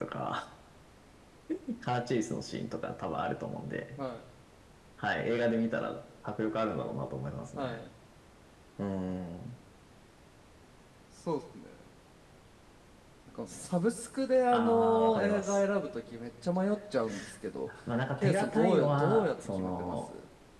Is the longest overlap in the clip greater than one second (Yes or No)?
Yes